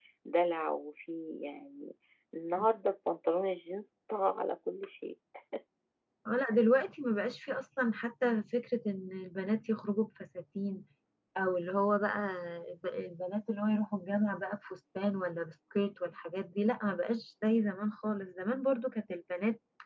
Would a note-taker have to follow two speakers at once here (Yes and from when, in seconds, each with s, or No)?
No